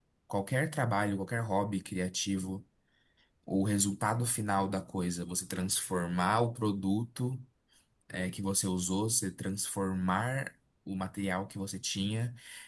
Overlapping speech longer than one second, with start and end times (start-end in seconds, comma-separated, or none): none